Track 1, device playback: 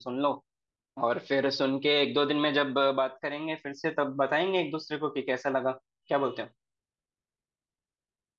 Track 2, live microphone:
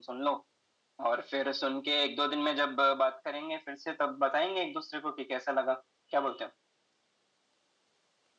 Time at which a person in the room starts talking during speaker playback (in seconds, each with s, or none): none